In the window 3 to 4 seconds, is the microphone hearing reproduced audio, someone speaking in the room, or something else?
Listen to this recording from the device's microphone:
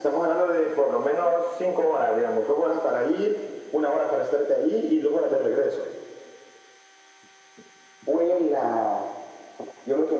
echo only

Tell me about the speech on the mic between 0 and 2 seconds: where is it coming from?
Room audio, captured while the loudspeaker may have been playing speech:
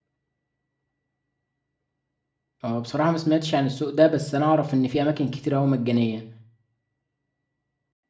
neither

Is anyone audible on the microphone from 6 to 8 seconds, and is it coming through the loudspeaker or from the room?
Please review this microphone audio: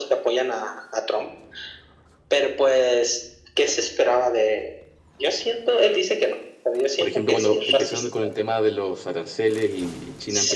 both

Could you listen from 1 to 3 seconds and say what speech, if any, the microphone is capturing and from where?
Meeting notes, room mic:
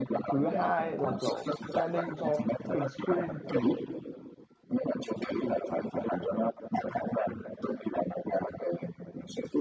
both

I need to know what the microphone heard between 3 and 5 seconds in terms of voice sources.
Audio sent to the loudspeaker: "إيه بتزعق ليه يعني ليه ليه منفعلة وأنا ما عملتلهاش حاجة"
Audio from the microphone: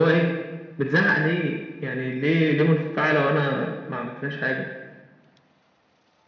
echo only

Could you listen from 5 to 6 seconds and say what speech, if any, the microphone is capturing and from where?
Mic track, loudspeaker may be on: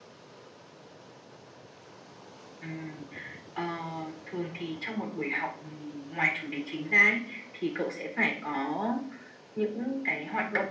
echo only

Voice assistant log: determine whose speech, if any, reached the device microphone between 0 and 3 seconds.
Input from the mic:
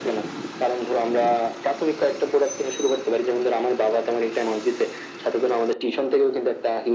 echo only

